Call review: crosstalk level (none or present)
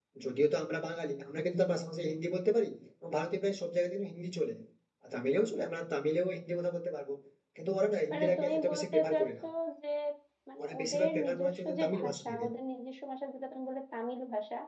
present